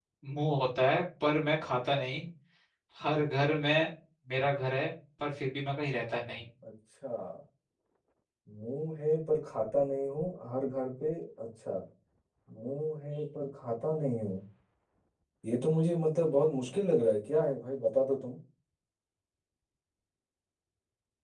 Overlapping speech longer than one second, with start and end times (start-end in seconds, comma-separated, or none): none